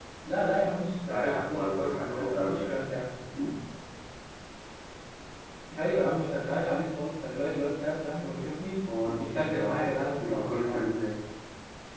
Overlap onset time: 1.1 s

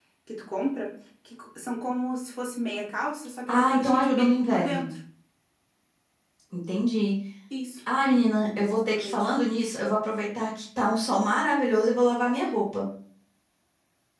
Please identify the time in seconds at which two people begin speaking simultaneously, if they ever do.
3.5 s

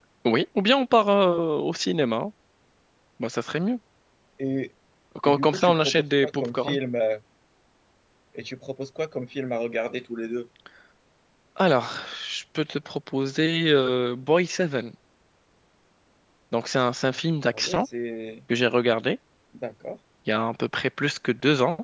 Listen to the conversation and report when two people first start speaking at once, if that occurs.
5.2 s

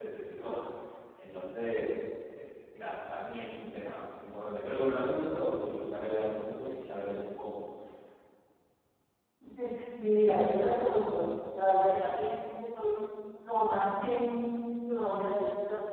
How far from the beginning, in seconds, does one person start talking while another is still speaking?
none

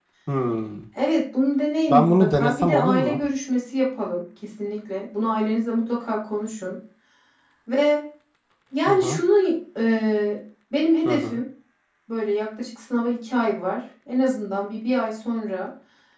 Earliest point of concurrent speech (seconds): 1.9 s

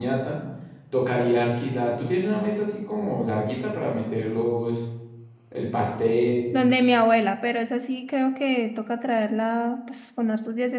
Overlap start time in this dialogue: none

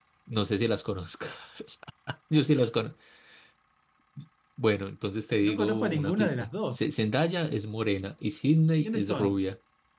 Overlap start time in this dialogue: 5.4 s

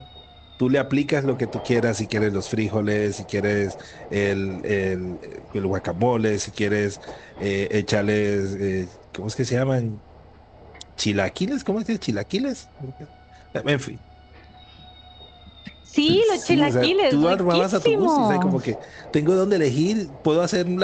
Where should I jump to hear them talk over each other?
16.2 s

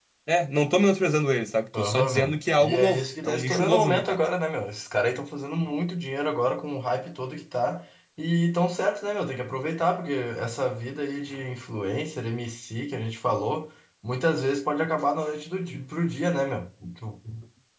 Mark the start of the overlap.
1.7 s

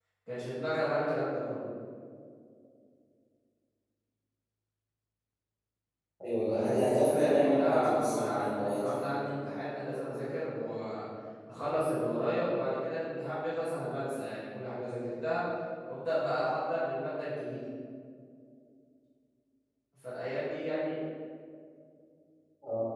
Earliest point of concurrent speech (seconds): 6.3 s

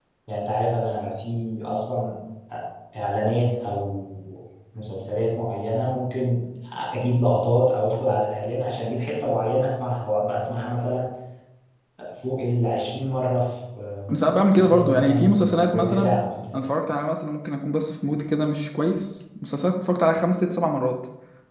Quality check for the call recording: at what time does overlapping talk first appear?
14.6 s

